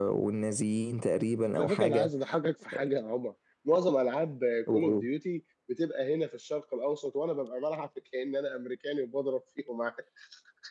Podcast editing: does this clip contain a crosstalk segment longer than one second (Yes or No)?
No